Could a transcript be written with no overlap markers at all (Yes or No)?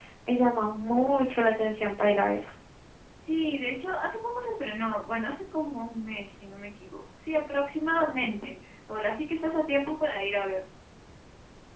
Yes